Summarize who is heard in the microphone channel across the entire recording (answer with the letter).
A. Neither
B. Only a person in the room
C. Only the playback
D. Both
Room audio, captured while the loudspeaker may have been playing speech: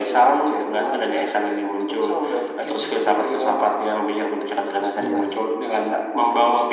D